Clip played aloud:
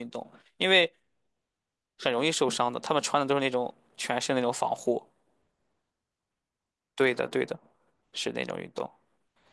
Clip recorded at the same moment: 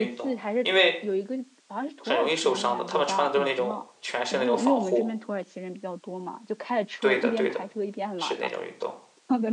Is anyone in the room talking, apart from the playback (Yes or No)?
Yes